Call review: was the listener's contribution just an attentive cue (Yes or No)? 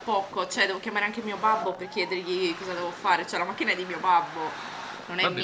No